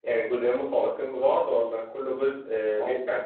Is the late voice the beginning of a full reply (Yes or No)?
Yes